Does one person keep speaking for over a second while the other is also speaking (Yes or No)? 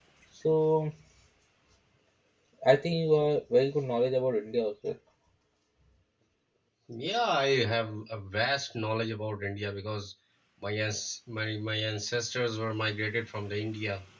No